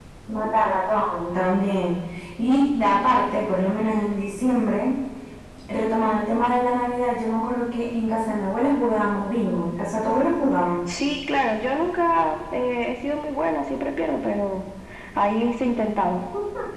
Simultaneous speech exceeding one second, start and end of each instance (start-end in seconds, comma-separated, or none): none